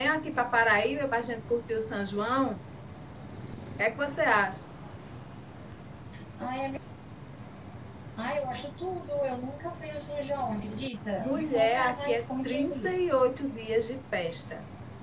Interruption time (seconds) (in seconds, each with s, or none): 11.2 s